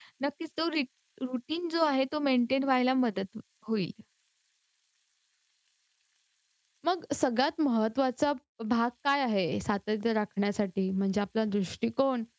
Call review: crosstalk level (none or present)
none